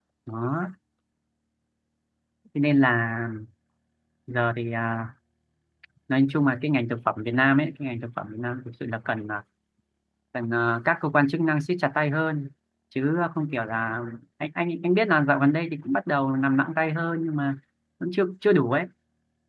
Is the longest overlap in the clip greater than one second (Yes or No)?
No